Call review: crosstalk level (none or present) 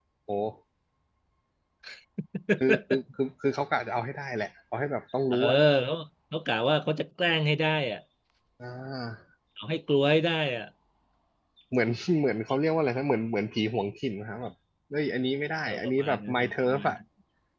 present